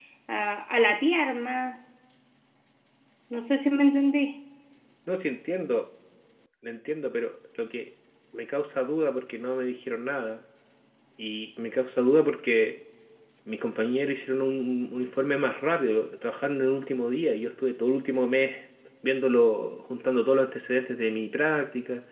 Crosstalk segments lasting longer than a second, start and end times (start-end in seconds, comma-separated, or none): none